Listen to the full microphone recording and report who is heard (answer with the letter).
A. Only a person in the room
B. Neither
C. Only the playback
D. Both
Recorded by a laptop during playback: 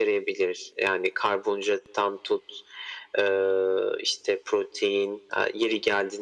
C